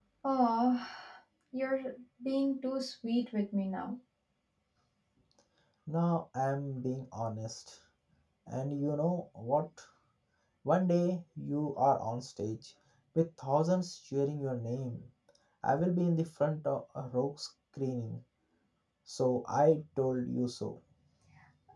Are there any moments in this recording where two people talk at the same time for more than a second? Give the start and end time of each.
none

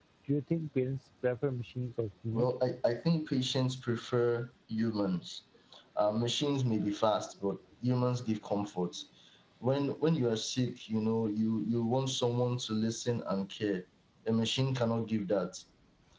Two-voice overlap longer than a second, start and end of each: none

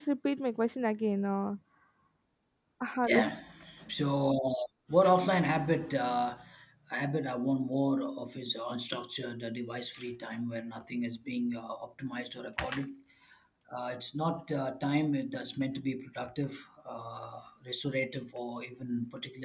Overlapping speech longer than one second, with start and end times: none

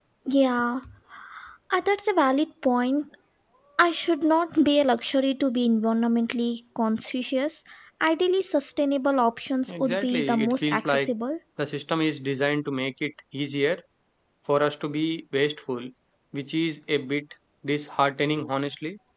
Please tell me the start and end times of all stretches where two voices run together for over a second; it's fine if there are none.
9.7-11.1

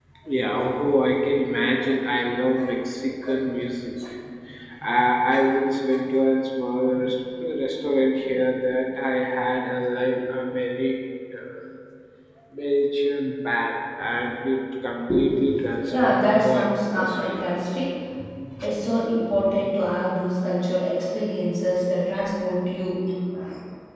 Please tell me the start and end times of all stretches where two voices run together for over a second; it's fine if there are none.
15.9-17.5

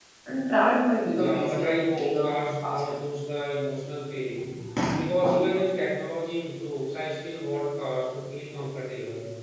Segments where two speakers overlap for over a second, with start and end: 1.1-3.0

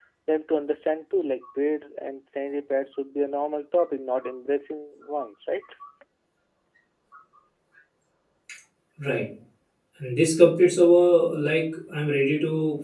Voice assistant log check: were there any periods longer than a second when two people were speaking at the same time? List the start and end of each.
none

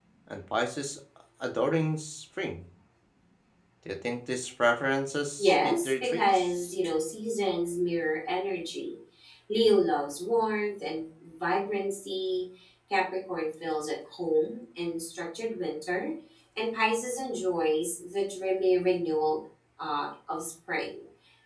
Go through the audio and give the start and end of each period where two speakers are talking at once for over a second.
5.4-6.7

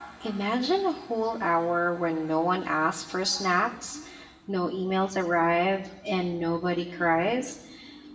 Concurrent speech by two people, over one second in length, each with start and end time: none

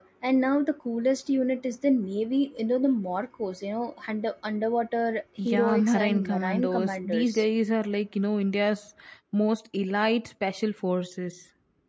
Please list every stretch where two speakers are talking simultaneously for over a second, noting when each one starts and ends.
5.5-7.4

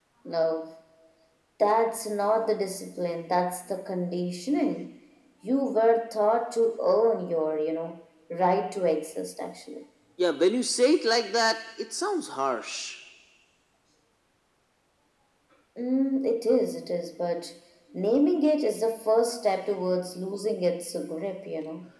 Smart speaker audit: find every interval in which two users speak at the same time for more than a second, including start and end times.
none

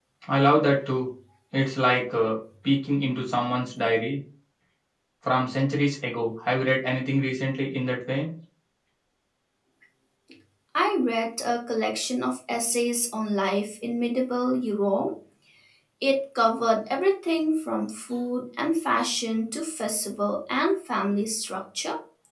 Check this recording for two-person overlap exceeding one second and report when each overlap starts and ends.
none

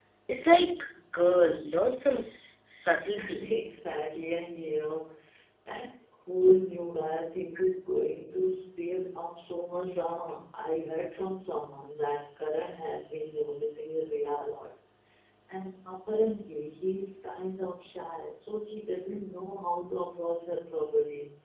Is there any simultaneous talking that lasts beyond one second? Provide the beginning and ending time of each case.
none

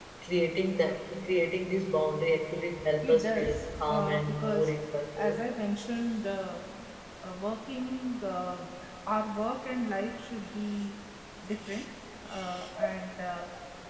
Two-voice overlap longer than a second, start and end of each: 3.0-4.7

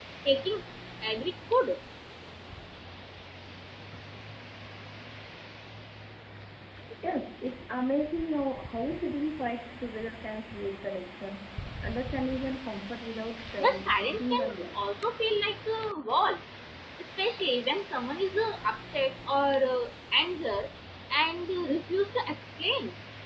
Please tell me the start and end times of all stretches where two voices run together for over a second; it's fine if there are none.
13.6-14.8

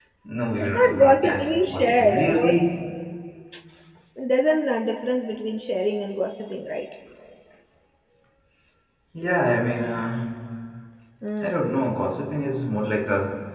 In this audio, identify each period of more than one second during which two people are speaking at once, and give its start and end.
0.6-2.5

